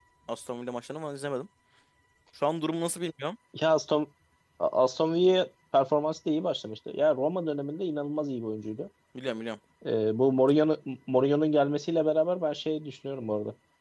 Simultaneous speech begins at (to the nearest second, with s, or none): none